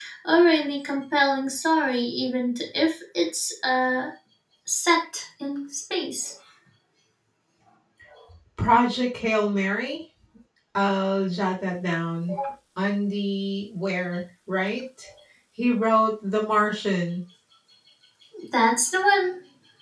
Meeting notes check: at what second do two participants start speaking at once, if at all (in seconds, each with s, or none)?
none